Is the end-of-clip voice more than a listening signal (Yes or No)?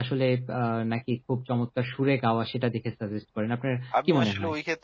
Yes